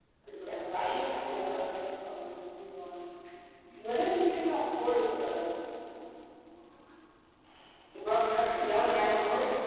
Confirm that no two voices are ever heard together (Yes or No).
No